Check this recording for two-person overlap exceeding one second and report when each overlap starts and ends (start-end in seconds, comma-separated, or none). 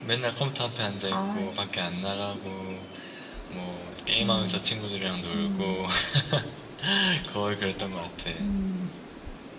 none